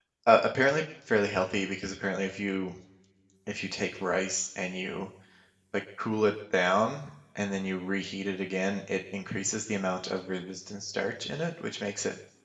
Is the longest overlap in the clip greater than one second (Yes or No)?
No